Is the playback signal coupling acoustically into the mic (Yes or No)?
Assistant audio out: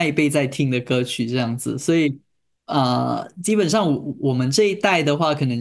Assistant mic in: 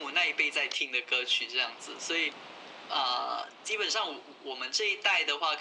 Yes